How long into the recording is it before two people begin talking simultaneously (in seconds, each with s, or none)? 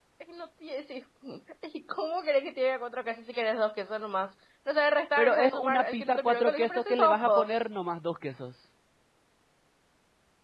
5.2 s